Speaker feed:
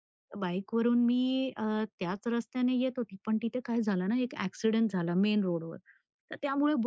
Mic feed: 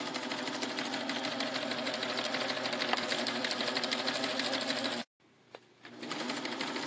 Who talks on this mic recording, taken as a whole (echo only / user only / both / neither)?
neither